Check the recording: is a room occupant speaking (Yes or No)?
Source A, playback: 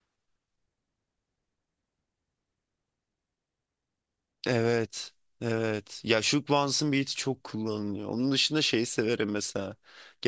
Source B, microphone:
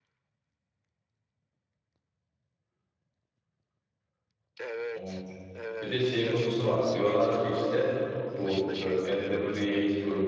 Yes